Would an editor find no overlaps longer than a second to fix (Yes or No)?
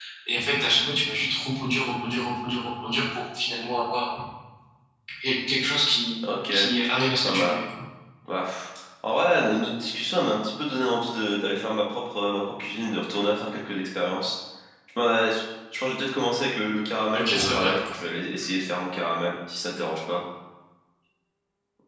Yes